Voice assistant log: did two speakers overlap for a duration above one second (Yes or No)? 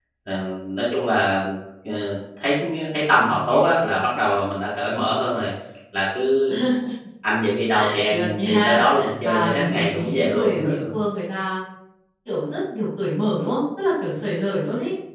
Yes